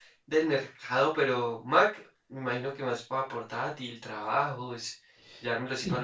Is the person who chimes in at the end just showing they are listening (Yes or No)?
Yes